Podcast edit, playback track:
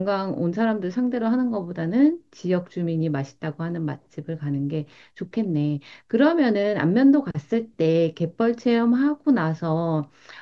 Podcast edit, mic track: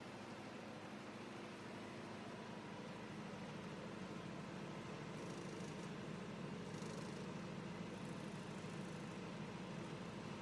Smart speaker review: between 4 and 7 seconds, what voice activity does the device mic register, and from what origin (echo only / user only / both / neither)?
neither